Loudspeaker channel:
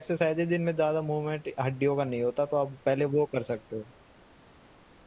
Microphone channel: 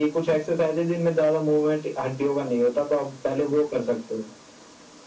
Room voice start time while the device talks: none

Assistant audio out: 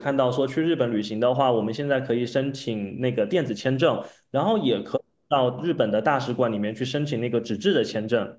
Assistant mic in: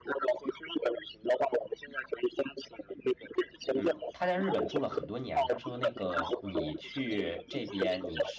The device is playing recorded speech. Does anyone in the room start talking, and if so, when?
3.7 s

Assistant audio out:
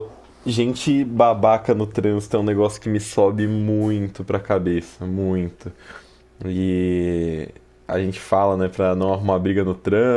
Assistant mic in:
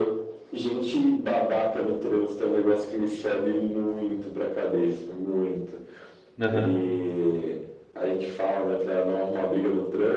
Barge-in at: 6.4 s

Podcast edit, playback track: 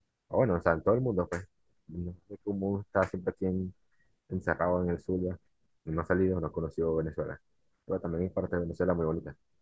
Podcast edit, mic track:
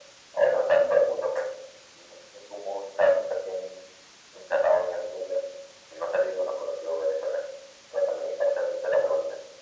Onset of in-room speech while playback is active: none

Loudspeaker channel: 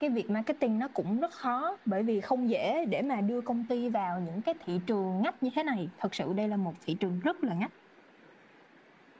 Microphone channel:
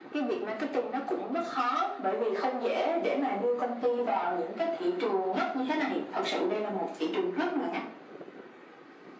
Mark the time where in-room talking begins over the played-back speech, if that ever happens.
none

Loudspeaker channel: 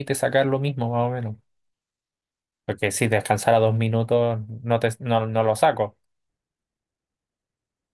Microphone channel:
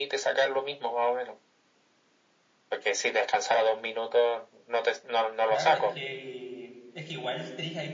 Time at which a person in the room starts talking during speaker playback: 5.5 s

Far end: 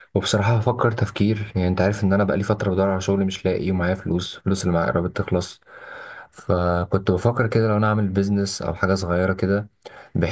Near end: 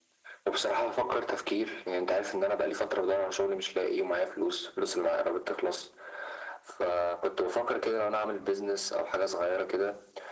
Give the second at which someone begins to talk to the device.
none

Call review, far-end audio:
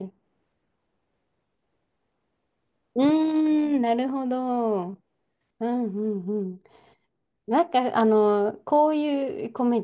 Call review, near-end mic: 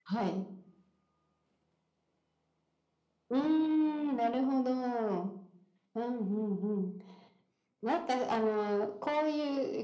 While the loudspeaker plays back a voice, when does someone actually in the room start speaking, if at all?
none

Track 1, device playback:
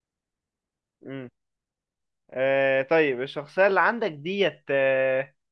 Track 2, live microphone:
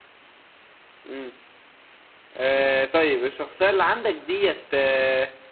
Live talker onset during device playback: none

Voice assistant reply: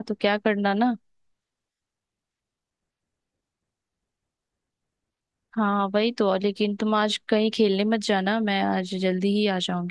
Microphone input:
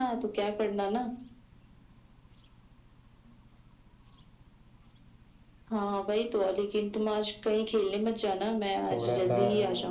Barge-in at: 8.9 s

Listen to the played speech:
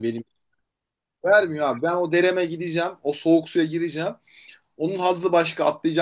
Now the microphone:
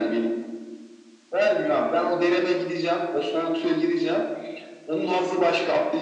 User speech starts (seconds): none

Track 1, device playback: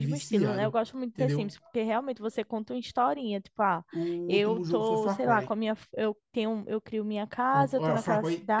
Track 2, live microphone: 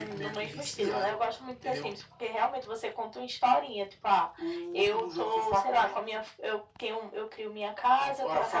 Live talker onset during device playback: none

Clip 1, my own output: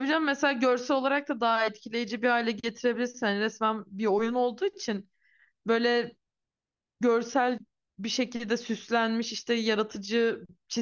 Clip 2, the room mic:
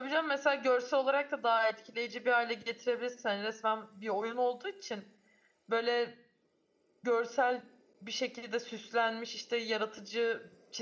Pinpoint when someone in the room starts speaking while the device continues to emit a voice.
none

